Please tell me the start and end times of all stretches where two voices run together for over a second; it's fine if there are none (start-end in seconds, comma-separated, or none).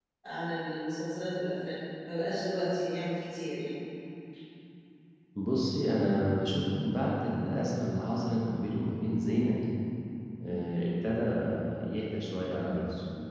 none